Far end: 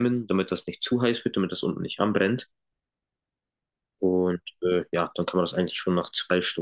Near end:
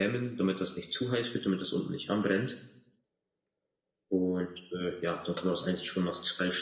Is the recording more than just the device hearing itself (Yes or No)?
No